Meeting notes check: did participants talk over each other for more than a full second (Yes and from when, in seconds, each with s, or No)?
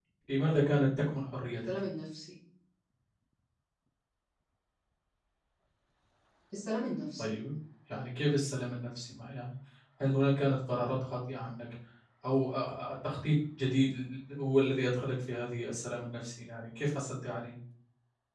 No